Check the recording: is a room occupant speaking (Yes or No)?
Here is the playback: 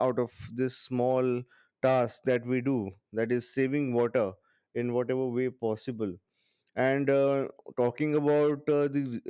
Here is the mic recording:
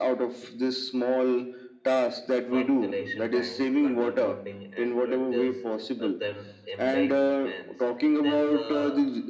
Yes